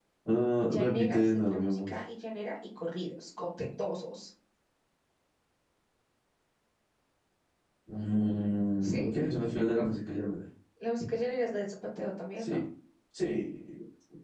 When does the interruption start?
1 s

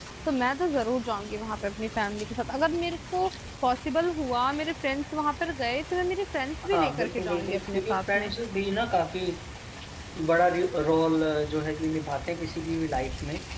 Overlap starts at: 7 s

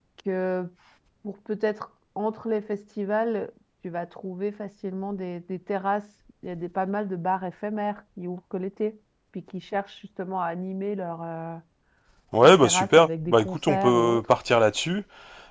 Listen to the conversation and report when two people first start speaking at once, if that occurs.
12 s

